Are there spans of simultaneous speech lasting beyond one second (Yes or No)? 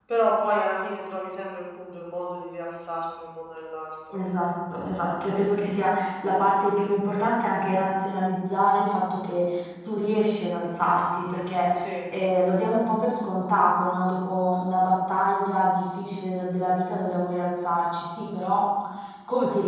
No